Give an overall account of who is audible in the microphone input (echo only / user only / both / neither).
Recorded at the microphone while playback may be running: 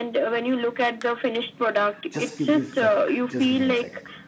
both